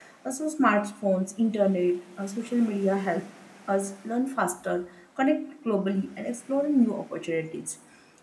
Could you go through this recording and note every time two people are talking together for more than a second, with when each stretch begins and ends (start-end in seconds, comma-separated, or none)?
none